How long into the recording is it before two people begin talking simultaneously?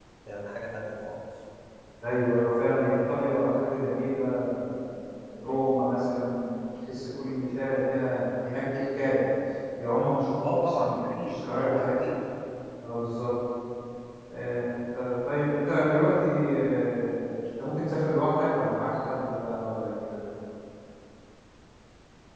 10 s

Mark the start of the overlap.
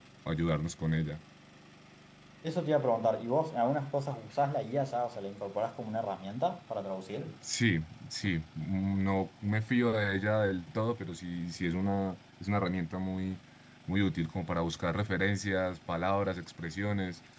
none

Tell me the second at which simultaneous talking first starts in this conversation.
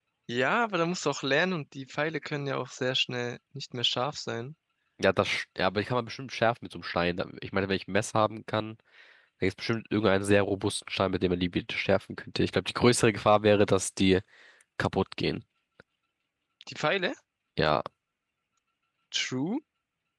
none

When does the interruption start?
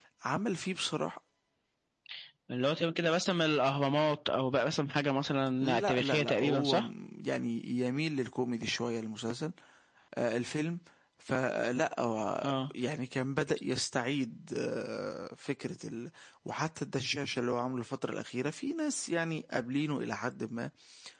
6 s

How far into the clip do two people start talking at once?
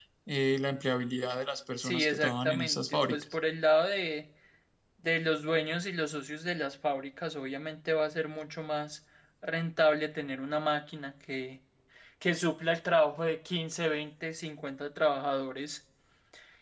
2 s

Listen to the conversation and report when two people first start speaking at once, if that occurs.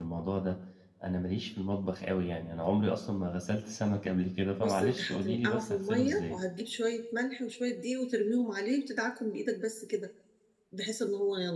5 s

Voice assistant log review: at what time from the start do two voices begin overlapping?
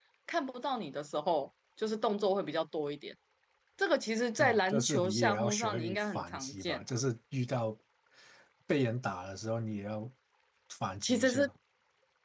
4 s

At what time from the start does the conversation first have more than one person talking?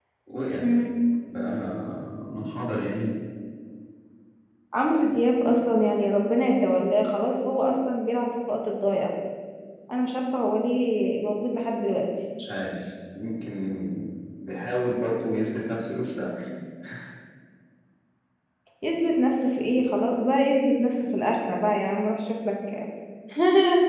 none

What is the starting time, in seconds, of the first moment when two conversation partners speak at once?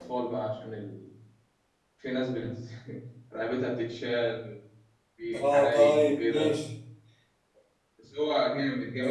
5 s

